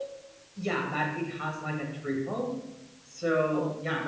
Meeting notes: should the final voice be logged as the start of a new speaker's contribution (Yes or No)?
No